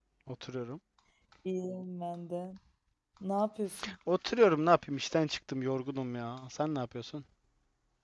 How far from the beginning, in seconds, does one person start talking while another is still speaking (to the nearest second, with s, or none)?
none